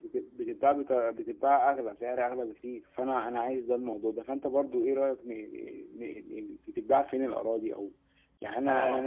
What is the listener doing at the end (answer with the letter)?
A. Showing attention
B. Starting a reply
B